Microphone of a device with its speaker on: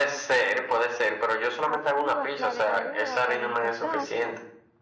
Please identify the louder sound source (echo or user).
echo